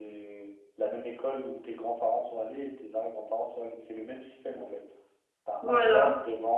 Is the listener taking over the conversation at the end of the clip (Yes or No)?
No